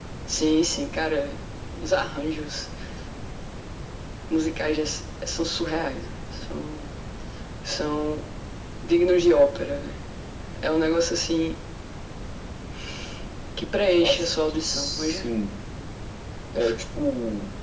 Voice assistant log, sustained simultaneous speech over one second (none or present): present